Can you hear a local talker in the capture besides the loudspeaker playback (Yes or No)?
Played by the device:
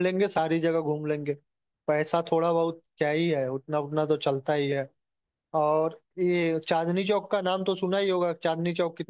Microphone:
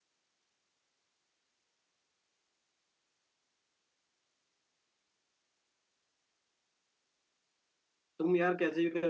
Yes